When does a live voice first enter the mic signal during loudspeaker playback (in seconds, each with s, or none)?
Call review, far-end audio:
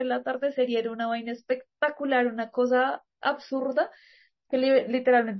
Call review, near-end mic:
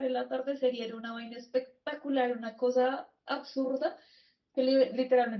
none